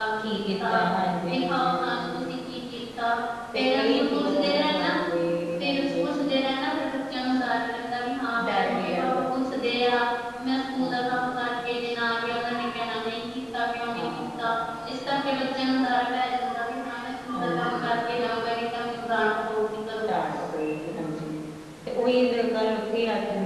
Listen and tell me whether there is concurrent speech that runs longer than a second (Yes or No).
Yes